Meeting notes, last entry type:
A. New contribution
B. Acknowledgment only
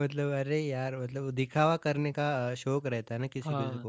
B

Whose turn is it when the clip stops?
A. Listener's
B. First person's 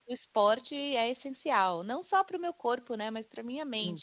A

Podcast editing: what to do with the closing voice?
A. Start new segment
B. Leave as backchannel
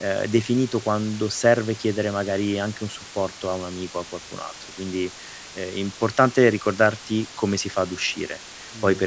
B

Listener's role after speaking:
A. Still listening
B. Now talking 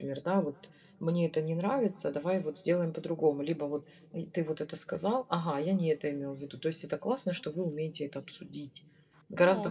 B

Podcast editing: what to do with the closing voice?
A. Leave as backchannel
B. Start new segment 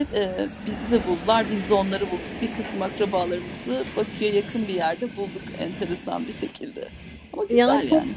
B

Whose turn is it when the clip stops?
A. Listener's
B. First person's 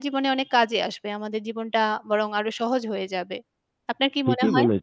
A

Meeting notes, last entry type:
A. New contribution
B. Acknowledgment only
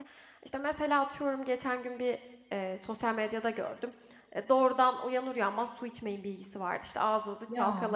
B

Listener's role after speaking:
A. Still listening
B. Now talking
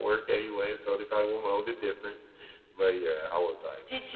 B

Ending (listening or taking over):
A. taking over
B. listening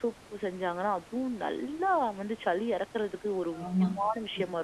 A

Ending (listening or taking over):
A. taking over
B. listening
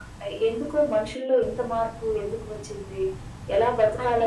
A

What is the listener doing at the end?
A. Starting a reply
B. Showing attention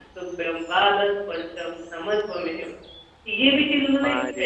A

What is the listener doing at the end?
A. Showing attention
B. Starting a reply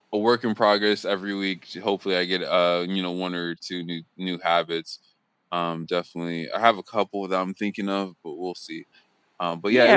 B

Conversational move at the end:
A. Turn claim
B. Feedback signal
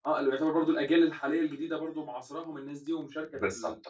A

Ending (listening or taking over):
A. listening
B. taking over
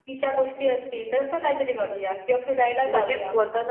B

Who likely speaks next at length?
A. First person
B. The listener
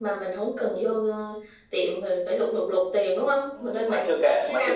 B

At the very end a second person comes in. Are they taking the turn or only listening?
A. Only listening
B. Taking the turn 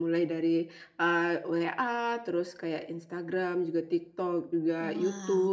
A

